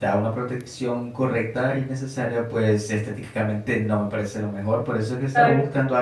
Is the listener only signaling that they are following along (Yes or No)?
Yes